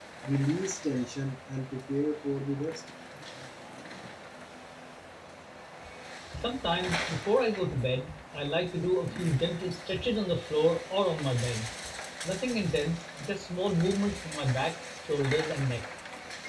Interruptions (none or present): none